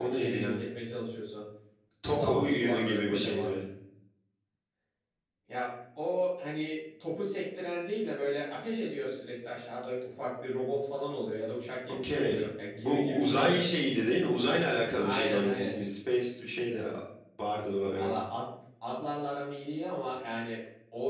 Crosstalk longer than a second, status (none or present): present